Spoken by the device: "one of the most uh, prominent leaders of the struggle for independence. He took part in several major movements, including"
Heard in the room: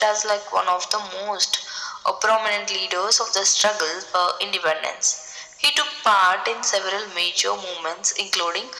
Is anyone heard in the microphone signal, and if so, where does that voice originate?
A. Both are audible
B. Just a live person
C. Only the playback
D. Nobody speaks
C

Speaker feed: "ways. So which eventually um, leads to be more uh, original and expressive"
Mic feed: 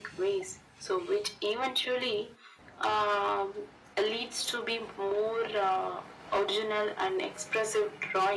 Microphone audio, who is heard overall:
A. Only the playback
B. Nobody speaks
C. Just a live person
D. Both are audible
A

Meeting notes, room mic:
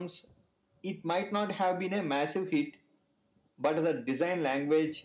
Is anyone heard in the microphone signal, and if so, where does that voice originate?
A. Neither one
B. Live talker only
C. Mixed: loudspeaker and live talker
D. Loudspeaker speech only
D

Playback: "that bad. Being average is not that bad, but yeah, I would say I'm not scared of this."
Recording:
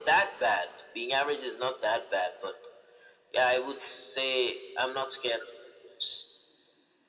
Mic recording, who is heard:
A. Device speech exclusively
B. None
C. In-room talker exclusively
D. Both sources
A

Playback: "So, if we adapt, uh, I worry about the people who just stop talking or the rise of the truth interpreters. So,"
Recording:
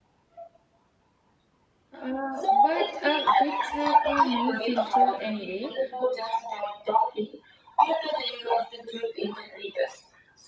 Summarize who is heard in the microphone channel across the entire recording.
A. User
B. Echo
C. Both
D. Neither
C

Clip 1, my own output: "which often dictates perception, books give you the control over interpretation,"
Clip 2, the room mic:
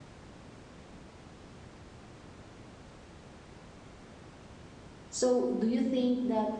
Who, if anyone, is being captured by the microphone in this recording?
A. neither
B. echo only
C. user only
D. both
C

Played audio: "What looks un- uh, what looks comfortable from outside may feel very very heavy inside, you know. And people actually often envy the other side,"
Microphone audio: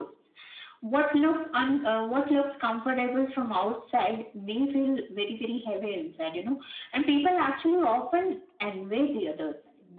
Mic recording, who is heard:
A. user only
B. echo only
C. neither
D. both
B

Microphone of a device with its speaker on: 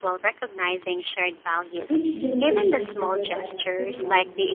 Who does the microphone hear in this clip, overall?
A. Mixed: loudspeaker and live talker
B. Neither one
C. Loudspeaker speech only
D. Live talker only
A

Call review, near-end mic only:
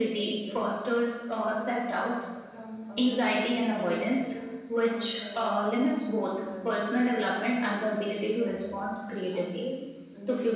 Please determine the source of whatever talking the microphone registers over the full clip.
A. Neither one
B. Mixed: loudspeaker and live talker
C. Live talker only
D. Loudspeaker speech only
B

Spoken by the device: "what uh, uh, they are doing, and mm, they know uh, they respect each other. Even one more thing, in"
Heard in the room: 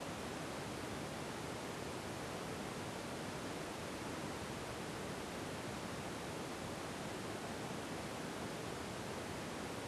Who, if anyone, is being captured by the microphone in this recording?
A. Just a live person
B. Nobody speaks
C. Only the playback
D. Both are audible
B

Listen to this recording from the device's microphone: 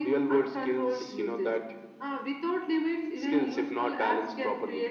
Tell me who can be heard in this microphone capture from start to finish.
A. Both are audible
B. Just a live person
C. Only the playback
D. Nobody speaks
C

